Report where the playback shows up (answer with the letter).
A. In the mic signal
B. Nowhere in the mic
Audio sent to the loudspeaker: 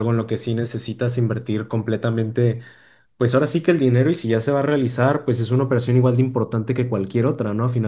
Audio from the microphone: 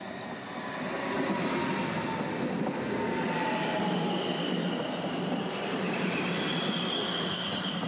B